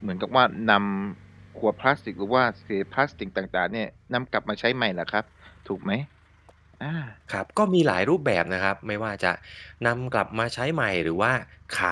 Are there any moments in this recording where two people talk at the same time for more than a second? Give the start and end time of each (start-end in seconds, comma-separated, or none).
none